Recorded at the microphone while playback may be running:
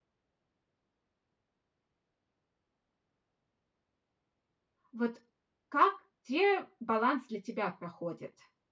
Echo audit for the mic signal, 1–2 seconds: neither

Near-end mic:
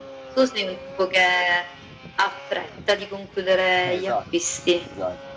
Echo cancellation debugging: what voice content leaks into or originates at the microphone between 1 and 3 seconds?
echo only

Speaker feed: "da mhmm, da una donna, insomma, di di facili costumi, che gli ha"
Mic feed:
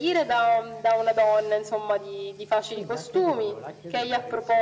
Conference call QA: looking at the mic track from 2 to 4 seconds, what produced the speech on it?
both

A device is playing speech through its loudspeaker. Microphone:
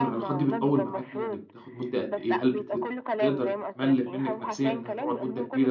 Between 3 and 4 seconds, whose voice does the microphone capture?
both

